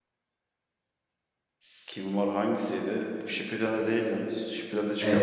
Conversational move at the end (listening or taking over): taking over